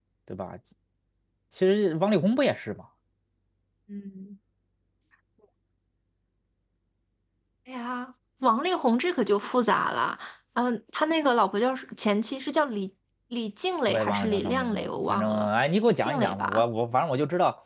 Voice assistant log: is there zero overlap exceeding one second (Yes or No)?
No